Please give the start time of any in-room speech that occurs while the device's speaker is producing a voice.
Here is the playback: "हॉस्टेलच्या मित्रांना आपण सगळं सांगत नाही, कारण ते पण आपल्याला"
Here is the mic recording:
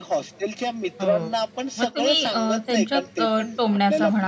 1 s

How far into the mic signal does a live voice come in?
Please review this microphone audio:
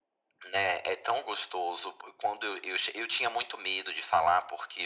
none

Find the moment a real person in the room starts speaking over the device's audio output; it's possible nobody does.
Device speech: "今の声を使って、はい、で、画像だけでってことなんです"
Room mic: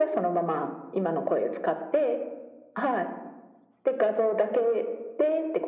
none

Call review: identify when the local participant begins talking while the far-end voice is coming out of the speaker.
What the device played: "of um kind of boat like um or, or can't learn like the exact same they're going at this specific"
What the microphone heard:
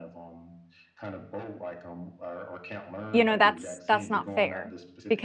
3 s

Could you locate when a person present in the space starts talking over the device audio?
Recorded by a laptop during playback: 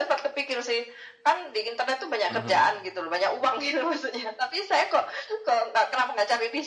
2 s

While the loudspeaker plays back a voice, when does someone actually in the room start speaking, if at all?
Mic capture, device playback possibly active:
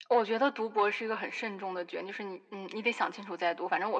none

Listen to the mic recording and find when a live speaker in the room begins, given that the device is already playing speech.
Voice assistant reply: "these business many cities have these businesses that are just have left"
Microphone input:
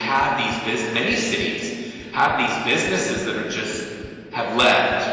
none

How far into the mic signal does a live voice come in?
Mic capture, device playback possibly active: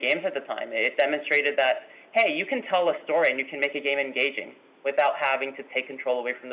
none

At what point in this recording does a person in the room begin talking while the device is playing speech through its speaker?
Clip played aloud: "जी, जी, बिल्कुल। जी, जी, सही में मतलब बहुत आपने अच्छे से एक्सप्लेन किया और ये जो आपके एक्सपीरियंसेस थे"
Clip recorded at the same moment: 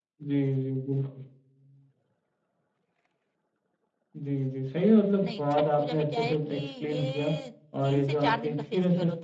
5 s

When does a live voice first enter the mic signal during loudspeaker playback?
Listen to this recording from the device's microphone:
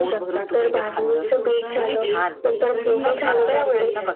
1 s

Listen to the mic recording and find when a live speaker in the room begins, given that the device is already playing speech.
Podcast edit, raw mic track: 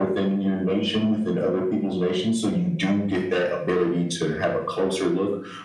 none

